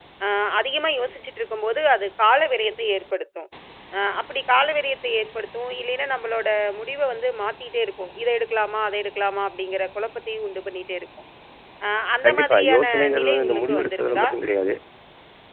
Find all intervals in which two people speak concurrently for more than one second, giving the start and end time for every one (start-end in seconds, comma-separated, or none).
12.2-14.3